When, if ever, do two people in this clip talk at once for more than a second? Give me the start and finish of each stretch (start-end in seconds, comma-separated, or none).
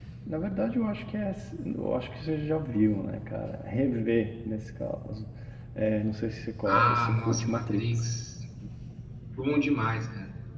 6.6-8.1